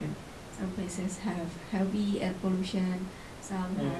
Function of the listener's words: listening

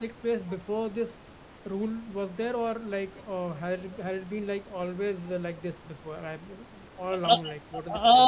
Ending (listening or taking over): taking over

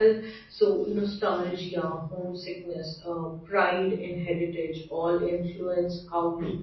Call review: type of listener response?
taking over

